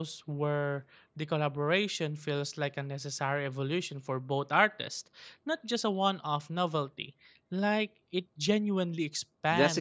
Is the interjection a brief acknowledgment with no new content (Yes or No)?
No